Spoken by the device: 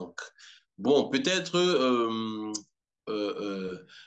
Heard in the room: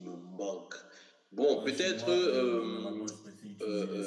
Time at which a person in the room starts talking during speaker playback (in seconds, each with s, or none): 1.5 s